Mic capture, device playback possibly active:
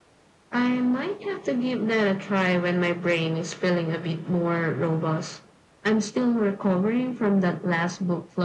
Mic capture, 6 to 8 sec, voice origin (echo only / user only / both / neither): echo only